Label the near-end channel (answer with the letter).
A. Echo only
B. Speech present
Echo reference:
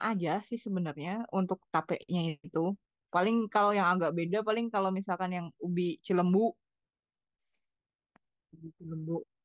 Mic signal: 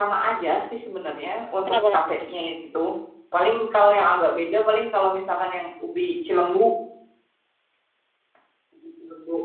B